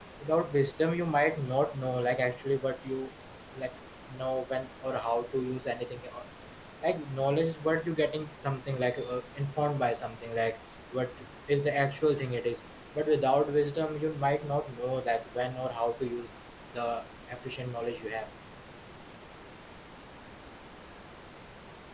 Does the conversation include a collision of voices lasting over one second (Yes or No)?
No